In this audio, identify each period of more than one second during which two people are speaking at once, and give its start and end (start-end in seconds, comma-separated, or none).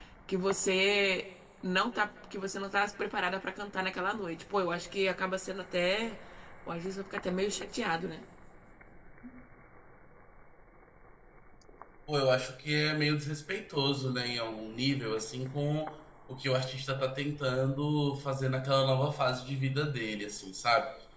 none